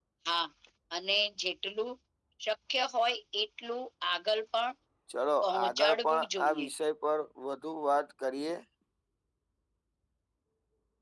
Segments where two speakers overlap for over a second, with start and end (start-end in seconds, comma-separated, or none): 5.4-6.7